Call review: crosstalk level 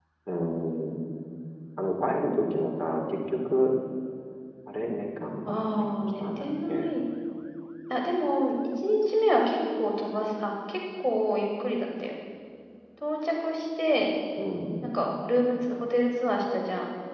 present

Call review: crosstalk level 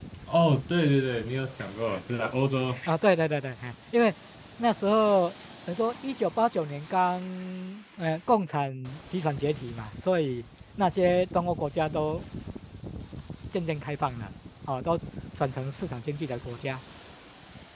none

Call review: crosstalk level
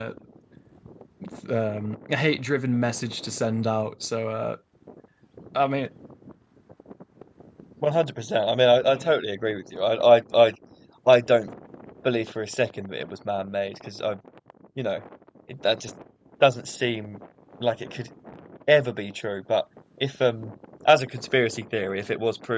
none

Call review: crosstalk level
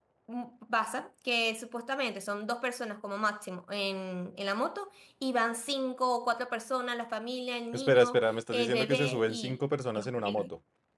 present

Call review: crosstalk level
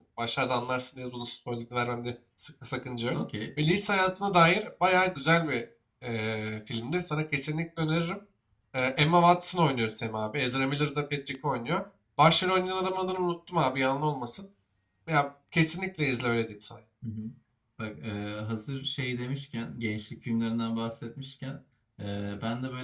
none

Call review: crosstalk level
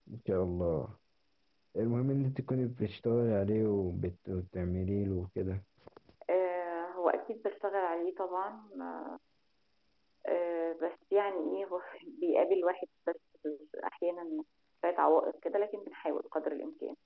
none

